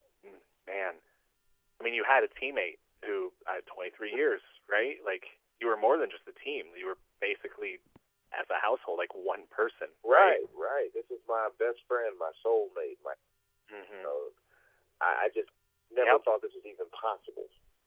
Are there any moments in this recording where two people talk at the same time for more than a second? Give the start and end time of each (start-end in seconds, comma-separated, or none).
none